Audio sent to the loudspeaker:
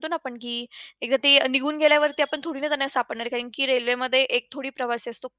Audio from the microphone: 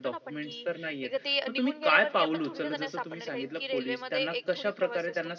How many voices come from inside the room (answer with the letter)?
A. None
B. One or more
B